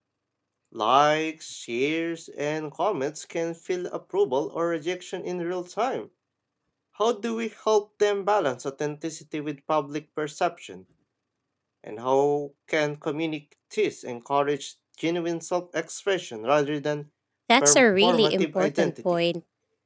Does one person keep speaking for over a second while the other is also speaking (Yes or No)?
Yes